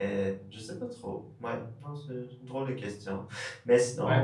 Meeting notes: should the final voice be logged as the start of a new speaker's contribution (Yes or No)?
Yes